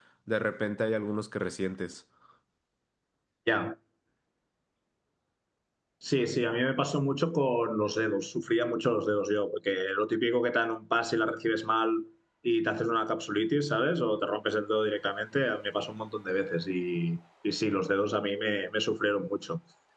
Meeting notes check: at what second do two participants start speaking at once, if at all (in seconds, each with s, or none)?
none